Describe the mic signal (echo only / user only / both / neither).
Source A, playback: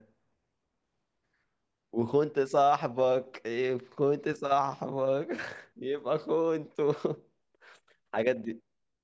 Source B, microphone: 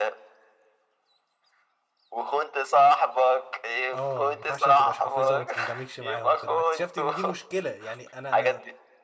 both